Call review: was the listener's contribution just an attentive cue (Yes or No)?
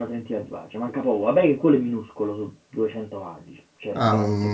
No